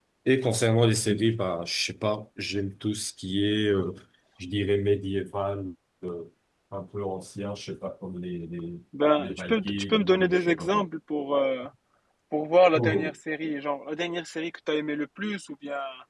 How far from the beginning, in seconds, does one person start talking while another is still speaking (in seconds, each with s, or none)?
9.2 s